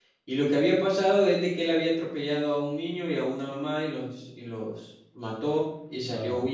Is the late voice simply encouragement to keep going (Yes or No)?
Yes